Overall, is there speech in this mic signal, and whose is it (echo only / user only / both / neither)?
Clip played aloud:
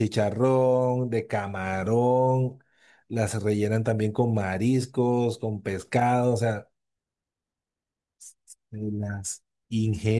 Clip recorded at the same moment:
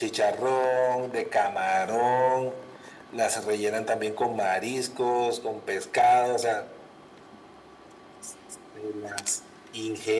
echo only